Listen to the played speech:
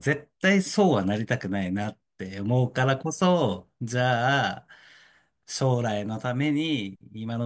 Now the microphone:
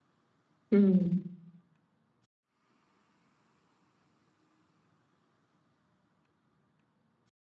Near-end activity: present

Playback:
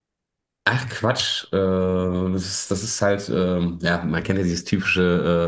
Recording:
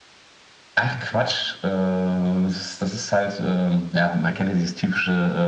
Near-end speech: none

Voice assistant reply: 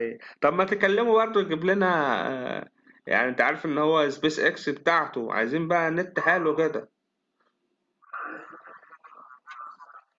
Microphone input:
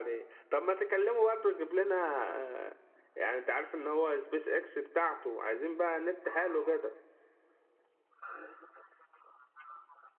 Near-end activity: none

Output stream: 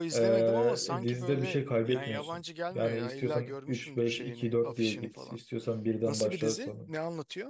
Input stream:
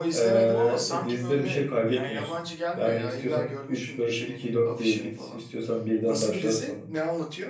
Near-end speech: none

